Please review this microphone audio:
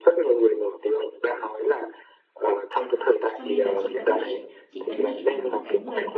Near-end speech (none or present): present